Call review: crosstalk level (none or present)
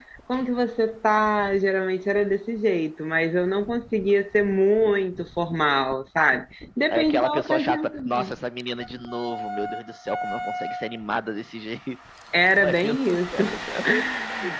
present